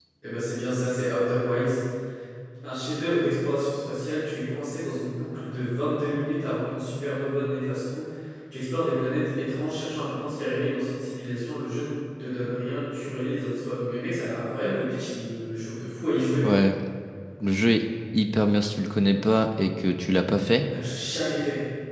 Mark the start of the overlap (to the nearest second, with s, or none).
none